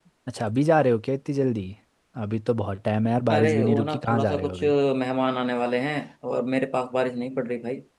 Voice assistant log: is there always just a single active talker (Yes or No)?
No